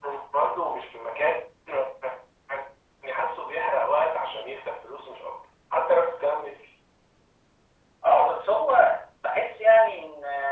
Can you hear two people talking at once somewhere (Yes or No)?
No